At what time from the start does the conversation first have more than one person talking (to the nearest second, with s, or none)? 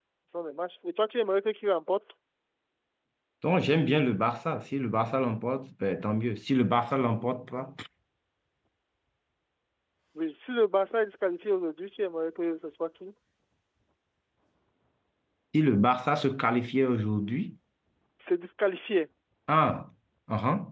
none